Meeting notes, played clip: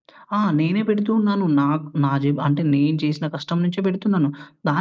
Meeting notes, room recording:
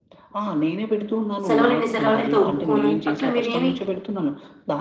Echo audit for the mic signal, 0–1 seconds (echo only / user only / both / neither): echo only